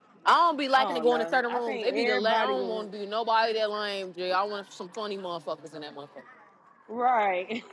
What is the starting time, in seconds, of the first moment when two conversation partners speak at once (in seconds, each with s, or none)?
0.8 s